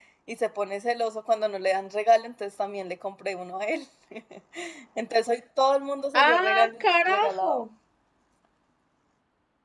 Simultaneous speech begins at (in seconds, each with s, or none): 6.1 s